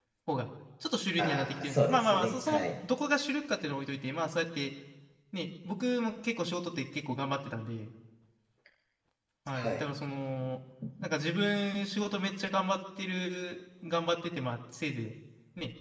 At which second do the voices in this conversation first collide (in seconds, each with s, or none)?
1.2 s